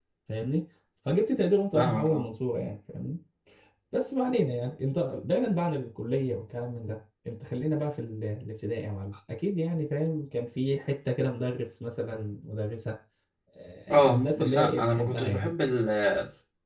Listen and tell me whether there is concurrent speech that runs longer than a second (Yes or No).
Yes